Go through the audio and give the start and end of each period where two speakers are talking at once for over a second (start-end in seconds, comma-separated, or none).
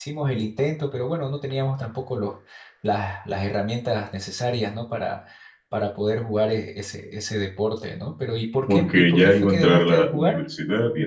8.7-10.4